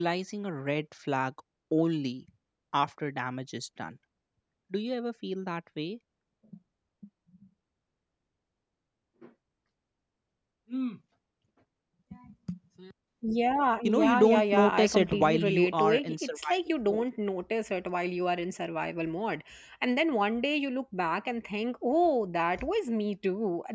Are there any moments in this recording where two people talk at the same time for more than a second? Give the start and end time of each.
13.8-17.0

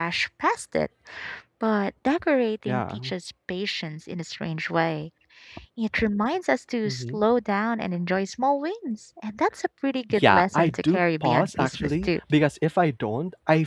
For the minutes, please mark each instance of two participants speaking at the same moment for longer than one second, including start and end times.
10.1-12.2

